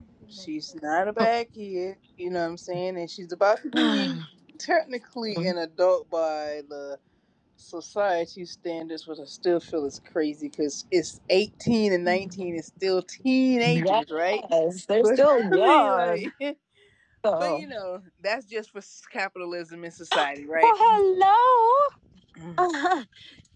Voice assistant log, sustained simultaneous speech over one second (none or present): present